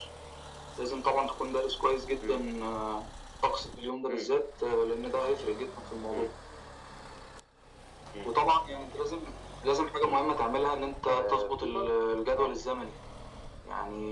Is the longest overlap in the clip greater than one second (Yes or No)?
Yes